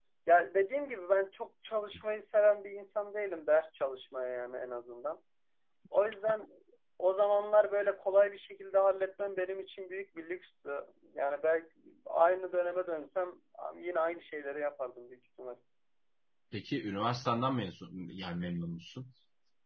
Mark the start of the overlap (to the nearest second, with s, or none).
none